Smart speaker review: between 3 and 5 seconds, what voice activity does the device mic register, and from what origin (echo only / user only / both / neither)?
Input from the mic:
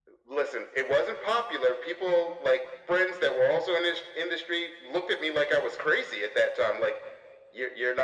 echo only